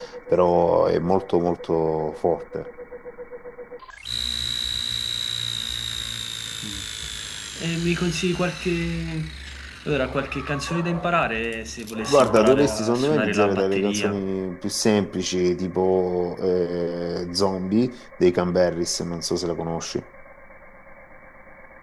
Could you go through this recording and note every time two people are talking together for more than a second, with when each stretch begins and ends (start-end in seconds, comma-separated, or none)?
12.1-14.3